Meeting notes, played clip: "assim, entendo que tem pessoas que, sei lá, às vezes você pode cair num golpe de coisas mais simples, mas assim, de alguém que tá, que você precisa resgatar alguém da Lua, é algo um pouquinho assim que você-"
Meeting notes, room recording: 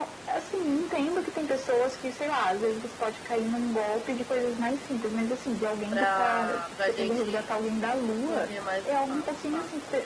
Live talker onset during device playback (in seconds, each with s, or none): 5.9 s